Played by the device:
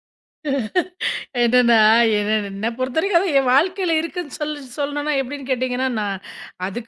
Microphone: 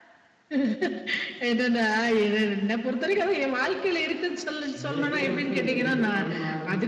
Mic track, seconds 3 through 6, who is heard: both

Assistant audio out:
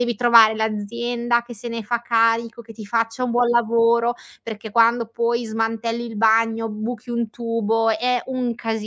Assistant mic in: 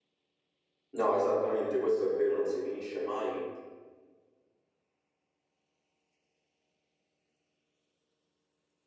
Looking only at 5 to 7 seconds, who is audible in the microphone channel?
neither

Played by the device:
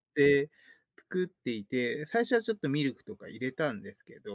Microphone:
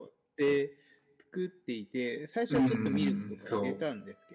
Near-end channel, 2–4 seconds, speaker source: both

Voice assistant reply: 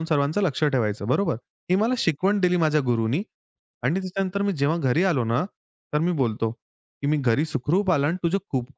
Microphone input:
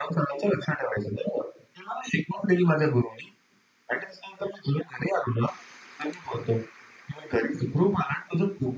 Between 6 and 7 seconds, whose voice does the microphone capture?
echo only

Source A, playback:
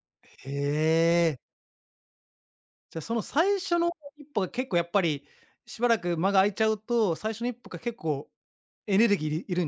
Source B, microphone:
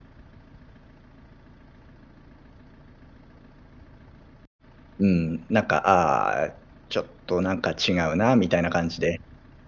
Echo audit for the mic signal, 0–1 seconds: neither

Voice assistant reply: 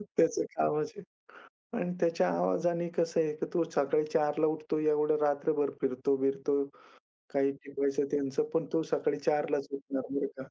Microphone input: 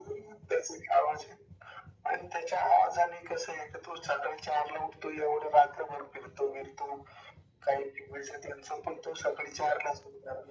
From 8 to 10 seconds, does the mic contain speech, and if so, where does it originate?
echo only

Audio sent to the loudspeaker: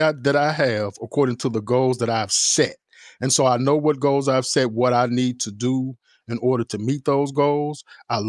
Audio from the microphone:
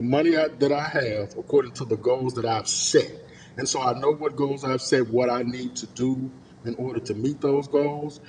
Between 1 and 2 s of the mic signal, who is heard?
echo only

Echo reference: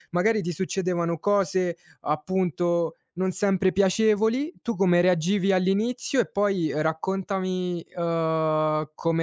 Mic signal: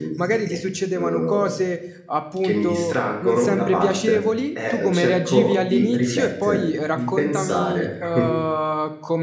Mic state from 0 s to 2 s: both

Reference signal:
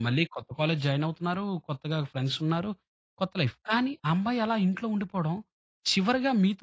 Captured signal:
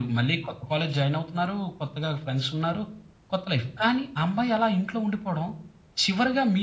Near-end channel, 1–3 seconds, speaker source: echo only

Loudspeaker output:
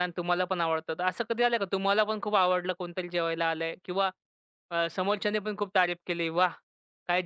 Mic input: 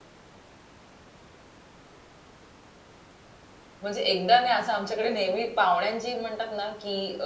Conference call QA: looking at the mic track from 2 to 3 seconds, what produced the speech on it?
neither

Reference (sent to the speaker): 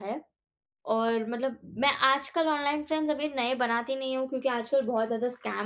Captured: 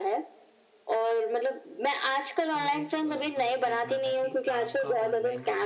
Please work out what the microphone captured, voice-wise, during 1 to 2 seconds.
echo only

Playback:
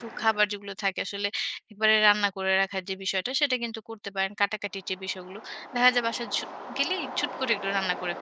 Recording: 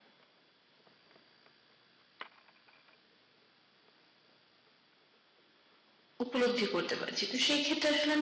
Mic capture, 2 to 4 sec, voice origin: neither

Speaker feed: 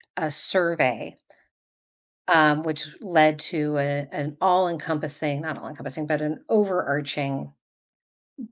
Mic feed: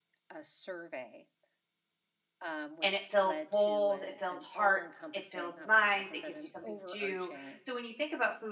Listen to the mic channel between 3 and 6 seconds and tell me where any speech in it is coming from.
both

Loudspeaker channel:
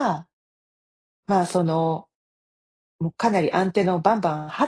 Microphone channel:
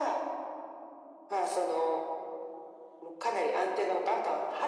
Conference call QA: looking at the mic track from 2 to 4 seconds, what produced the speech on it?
echo only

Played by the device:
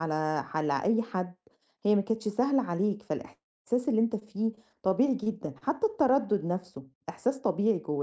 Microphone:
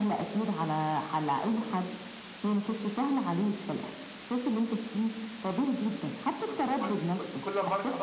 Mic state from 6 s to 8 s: both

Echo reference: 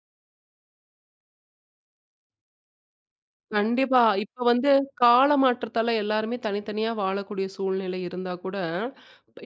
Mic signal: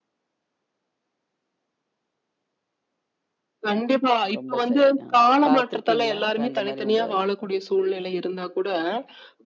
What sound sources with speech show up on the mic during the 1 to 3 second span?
neither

